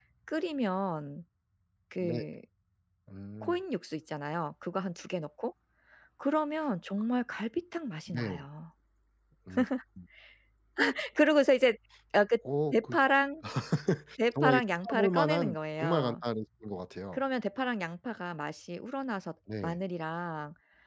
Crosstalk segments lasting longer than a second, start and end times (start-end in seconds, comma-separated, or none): 14.3-16.1